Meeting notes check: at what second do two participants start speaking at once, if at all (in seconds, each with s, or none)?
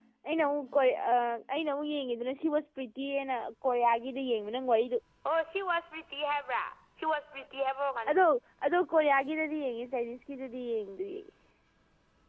none